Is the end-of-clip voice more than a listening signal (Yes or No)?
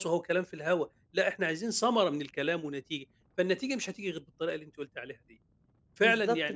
Yes